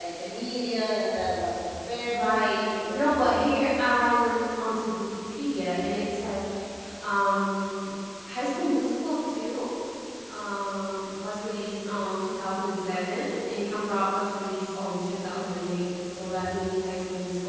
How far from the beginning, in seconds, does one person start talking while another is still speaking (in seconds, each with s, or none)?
2.0 s